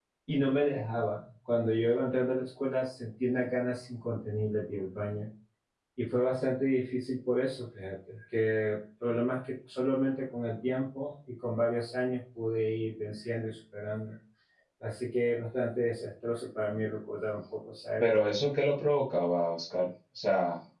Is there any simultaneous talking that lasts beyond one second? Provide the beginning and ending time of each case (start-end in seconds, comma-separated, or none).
none